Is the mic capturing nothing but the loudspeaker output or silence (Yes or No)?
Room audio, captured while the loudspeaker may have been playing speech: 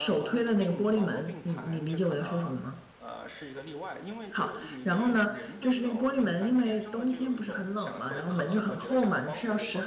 No